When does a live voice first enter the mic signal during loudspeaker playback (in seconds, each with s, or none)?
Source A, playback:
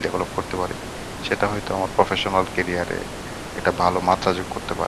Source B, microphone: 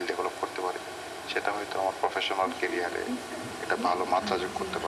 2.5 s